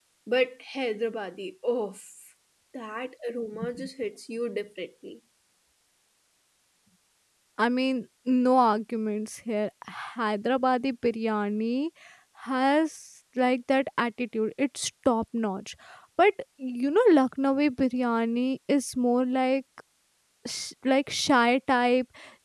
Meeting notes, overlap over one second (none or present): none